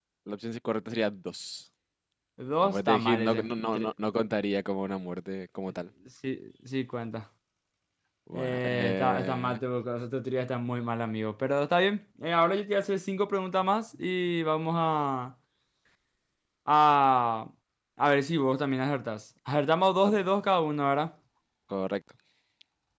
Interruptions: present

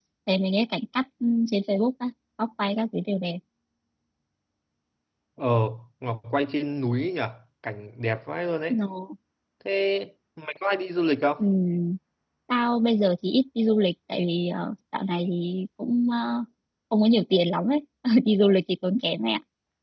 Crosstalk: none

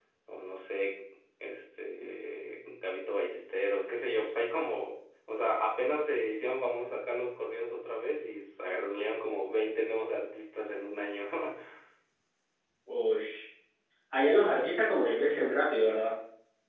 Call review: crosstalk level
none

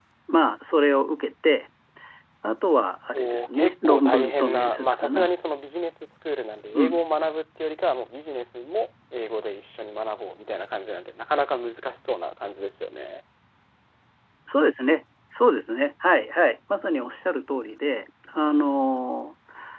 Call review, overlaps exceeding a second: present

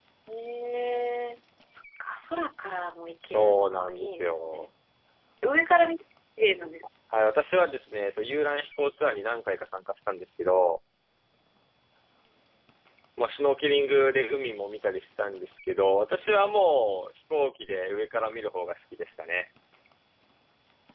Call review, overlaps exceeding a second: present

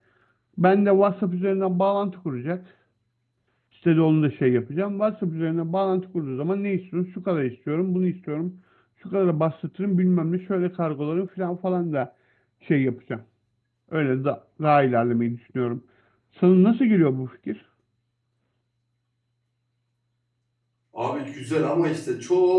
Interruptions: none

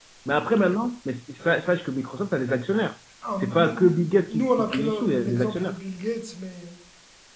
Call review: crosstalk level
present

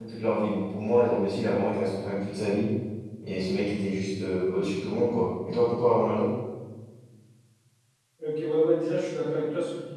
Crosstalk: none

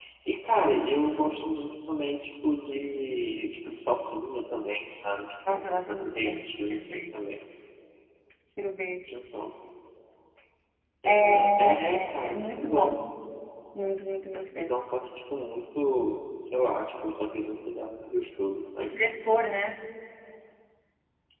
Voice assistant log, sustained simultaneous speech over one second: present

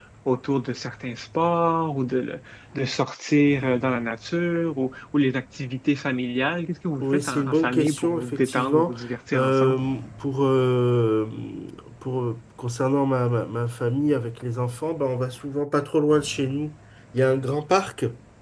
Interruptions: present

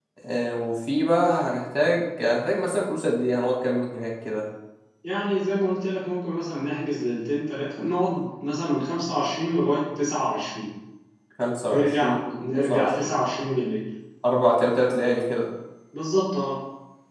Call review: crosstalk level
present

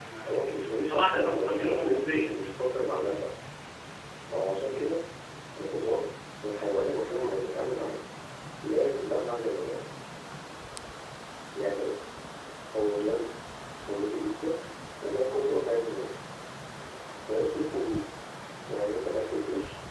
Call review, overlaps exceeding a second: present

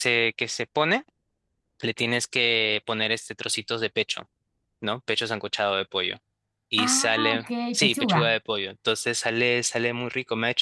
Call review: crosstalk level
present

